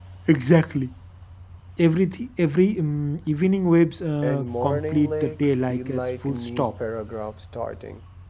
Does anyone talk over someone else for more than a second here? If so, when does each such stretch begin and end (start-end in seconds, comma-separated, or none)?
4.2-6.7